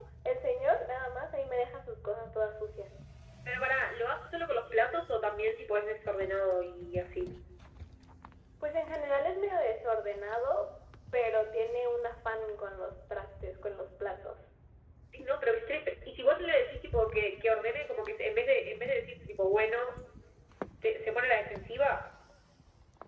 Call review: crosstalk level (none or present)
none